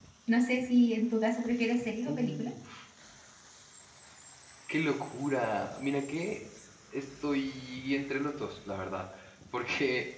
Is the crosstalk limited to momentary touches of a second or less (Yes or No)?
Yes